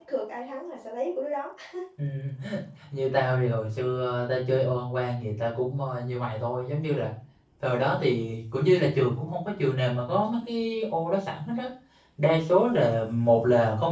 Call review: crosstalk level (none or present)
none